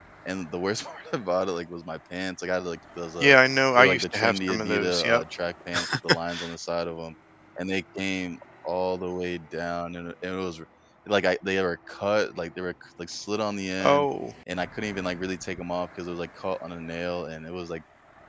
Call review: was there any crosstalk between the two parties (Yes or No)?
Yes